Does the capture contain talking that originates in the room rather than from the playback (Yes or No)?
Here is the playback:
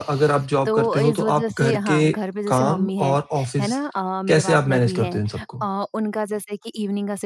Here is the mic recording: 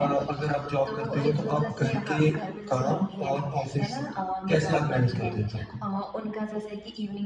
No